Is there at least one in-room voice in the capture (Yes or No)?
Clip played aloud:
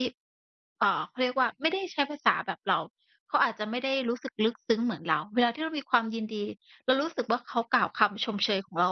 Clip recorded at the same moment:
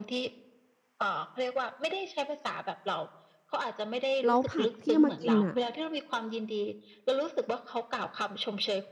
Yes